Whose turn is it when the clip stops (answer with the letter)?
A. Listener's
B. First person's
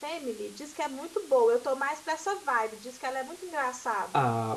A